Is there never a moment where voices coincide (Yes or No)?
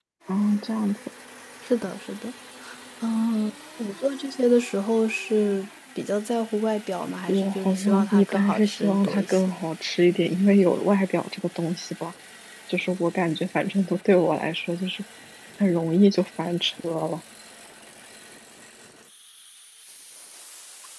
No